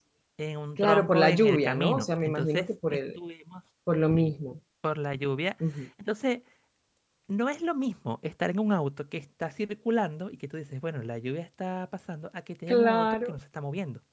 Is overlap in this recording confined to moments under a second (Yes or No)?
No